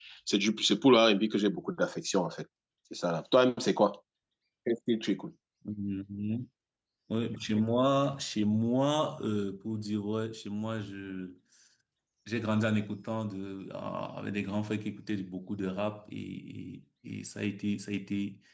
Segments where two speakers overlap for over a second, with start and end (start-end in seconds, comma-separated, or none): none